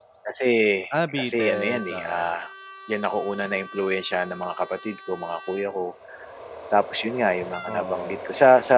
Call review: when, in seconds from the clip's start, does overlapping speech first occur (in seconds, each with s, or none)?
0.9 s